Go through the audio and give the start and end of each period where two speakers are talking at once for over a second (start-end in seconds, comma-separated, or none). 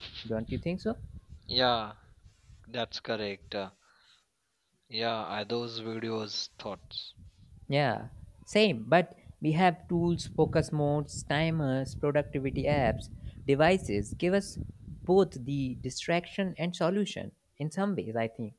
none